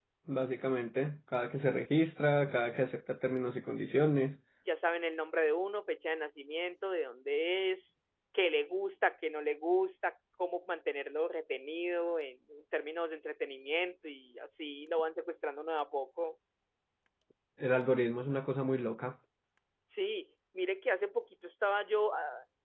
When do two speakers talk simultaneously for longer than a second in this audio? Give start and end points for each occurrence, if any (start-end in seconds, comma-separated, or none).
none